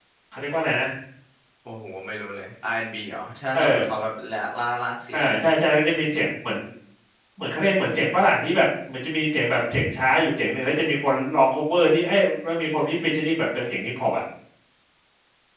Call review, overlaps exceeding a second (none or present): none